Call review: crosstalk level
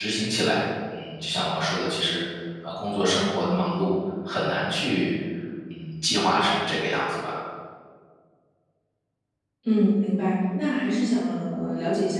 none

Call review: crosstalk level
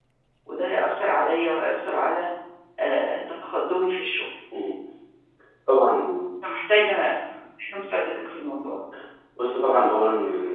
none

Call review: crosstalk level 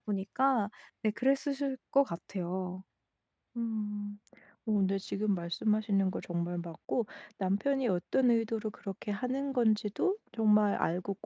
none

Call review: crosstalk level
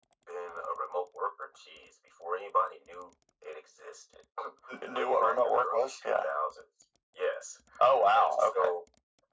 present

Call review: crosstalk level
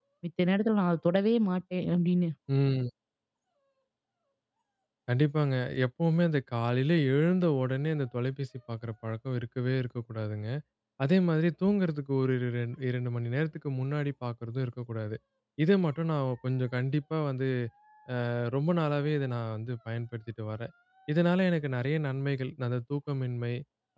none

